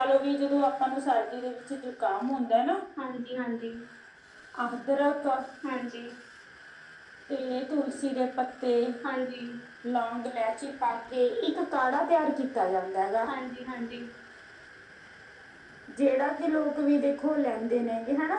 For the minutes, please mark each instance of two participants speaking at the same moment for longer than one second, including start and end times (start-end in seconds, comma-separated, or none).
none